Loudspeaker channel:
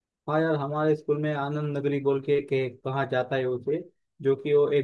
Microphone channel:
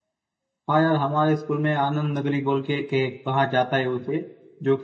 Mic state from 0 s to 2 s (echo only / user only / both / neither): echo only